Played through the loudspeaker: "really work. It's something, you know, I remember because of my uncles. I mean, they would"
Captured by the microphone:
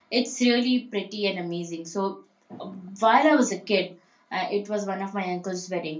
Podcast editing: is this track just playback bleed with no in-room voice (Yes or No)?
No